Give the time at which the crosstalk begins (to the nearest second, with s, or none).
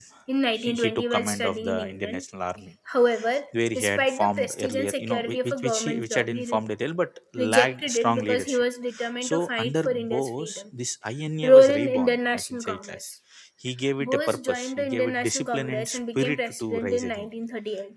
1 s